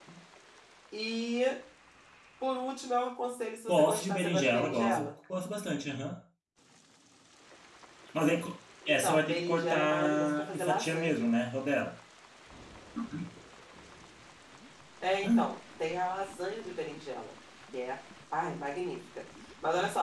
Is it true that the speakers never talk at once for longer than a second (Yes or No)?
No